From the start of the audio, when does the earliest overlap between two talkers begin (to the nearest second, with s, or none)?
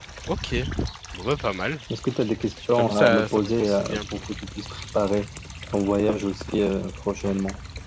3 s